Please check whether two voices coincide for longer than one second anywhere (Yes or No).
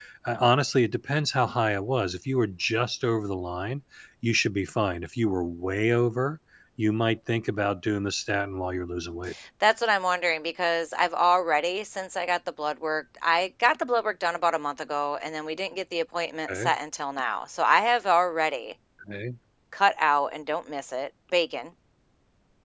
No